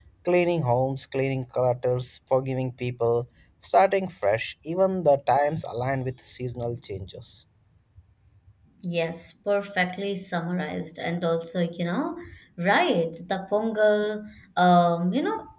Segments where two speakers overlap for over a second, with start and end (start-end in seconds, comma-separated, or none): none